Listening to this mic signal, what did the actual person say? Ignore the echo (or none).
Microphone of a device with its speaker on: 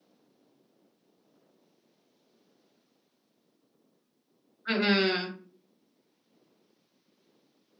Mm.